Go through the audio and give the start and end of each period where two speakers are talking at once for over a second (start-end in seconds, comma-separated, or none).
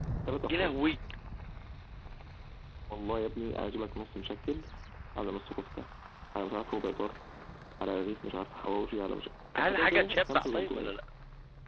9.6-10.9